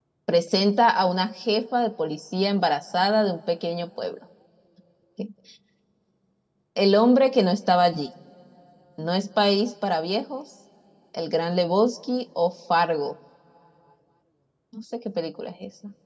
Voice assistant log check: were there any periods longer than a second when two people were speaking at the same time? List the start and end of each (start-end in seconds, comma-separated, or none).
none